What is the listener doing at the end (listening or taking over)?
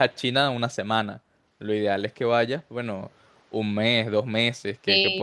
listening